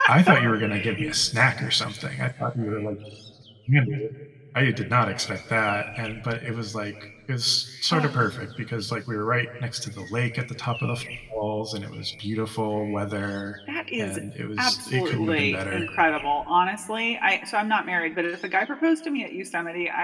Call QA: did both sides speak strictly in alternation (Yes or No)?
No